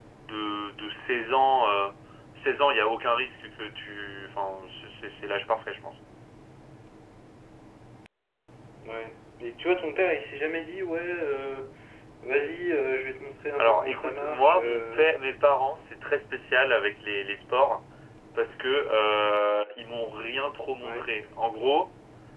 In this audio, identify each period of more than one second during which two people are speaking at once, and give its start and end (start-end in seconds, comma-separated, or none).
13.6-15.0